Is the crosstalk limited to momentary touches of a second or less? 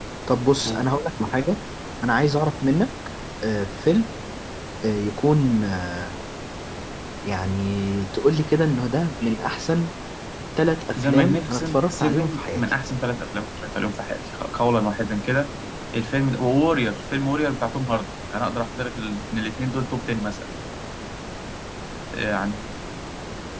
No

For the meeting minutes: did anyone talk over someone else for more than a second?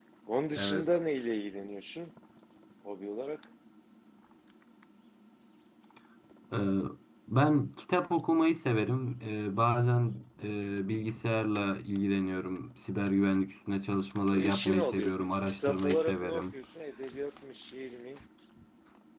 Yes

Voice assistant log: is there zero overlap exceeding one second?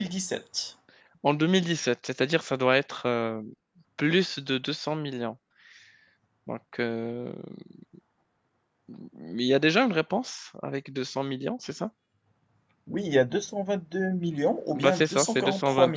No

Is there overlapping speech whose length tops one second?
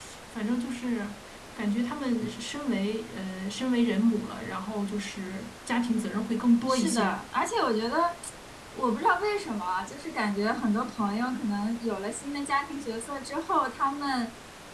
No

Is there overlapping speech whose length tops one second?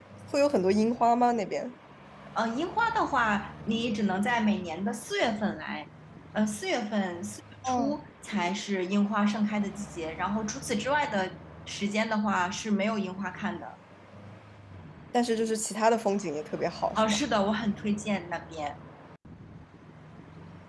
No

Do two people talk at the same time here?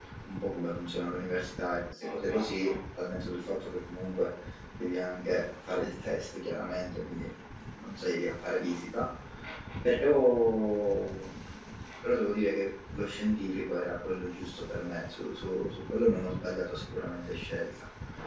No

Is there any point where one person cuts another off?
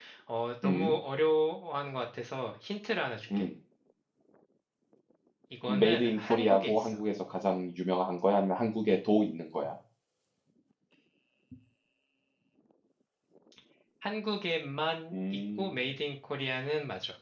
Yes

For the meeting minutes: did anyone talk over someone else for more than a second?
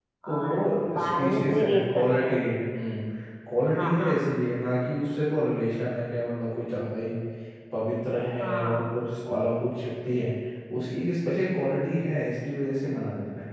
Yes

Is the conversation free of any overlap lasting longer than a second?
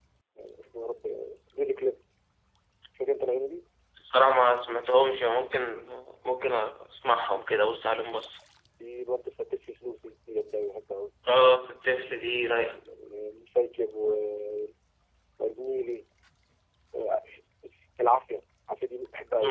Yes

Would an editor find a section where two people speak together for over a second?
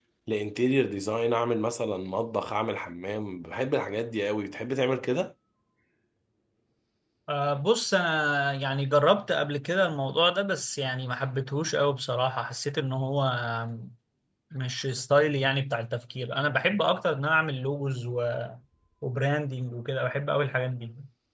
No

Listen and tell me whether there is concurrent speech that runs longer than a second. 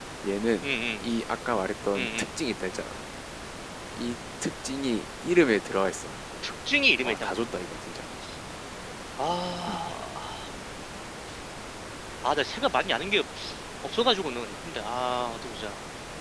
No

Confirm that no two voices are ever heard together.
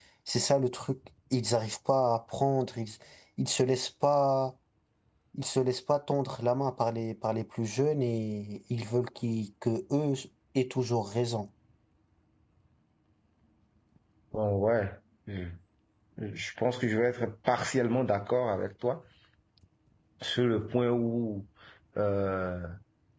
Yes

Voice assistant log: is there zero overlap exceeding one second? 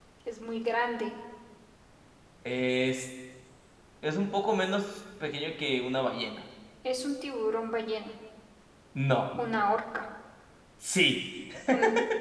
Yes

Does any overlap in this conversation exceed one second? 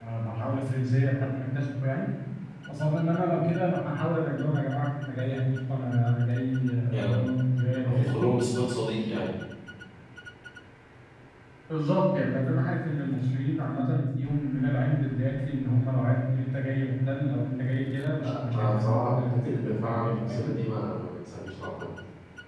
Yes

